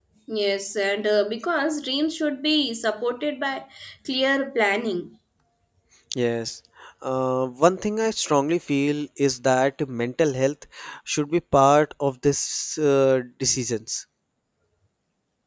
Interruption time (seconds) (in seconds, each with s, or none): none